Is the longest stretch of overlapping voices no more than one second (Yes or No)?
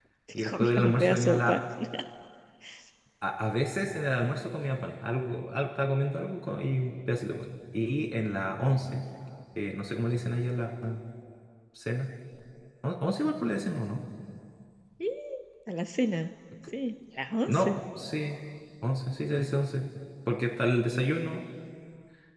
No